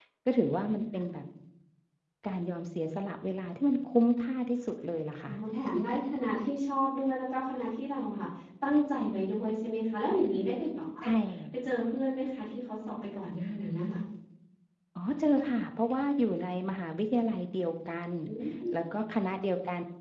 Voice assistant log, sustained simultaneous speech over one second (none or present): none